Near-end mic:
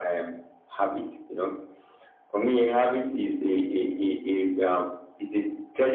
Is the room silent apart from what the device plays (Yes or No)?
Yes